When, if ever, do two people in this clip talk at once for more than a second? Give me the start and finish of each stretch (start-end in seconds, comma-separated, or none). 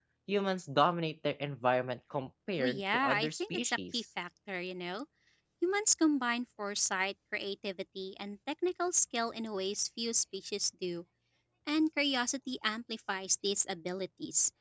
2.6-4.0